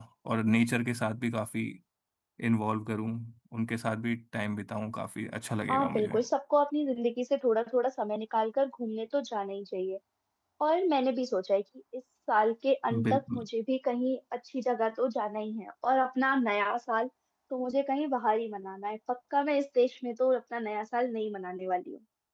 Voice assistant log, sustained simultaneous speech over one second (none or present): none